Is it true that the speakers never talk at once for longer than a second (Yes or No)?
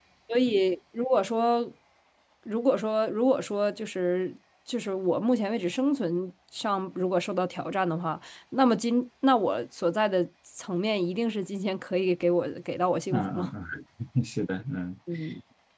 Yes